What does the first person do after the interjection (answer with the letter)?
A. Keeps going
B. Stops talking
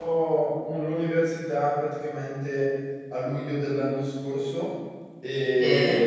A